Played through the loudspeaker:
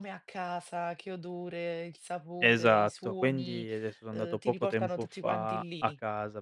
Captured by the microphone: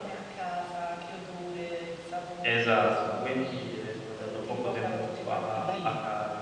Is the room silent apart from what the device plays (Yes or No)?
No